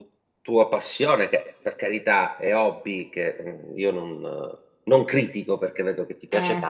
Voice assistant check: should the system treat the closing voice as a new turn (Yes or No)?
No